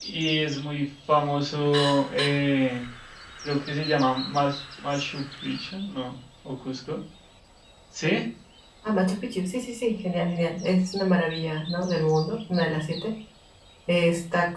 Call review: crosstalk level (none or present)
none